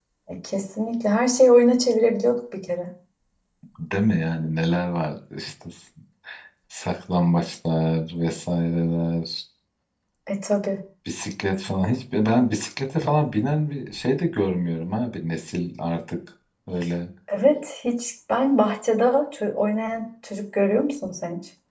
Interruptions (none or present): none